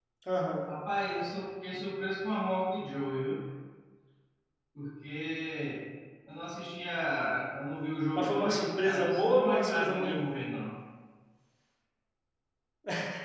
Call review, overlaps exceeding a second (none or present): present